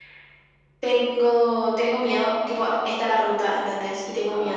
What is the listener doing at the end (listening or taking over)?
listening